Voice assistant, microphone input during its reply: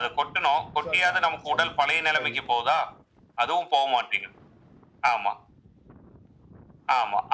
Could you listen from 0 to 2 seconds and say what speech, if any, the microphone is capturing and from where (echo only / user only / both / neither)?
both